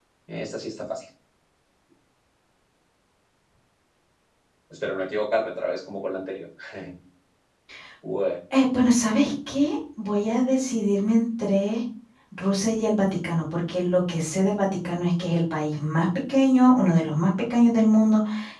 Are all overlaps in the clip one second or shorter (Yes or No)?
Yes